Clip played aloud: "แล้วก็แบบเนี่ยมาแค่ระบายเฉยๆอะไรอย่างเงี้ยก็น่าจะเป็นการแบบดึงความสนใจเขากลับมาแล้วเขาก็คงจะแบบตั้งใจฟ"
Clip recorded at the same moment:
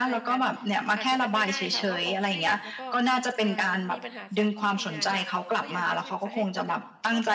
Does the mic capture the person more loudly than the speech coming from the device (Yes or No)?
No